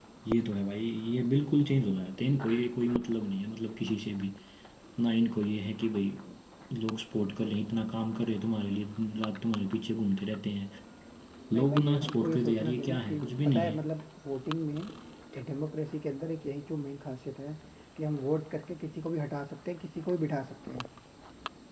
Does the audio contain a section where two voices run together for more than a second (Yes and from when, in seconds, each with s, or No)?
Yes, from 11.5 s